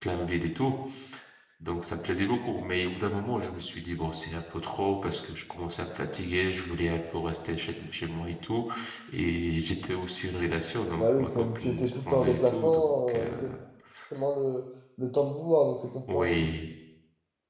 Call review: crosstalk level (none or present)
present